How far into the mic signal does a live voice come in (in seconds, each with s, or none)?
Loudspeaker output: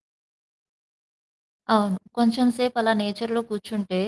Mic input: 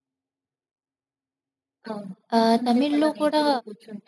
2.4 s